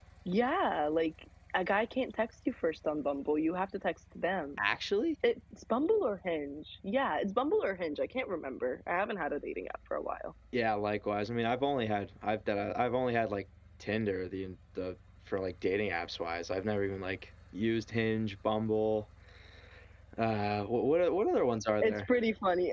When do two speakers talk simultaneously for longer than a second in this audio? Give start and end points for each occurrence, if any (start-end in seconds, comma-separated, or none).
none